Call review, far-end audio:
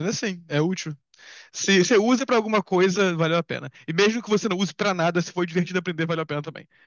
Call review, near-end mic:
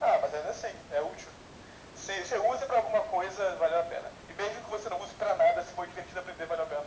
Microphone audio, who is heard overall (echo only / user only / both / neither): echo only